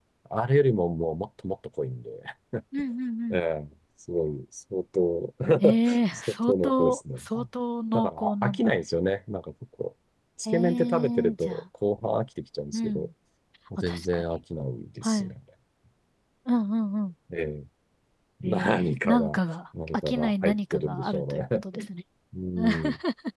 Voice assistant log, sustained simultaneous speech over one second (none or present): present